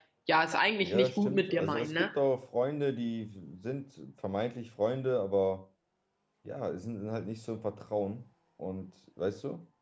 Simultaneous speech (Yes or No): Yes